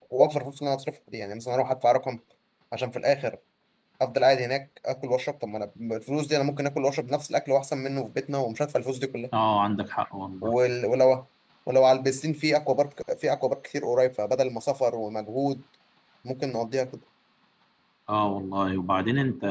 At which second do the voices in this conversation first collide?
none

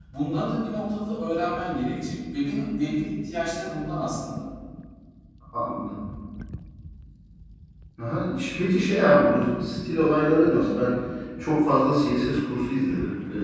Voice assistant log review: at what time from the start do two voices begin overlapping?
none

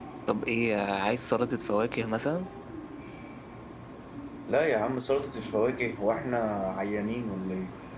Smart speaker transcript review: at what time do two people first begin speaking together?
none

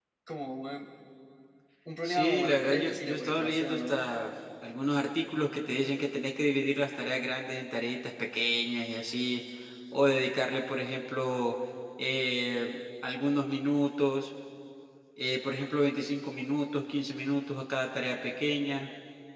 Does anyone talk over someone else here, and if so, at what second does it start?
2.0 s

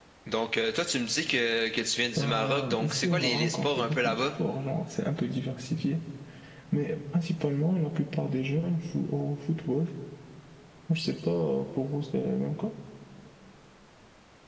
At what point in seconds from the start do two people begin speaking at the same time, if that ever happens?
2.2 s

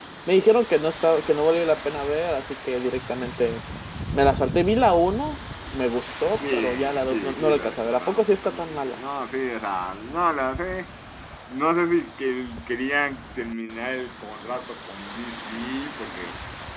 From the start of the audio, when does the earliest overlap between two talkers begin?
6.4 s

